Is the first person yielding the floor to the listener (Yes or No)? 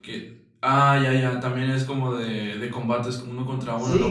Yes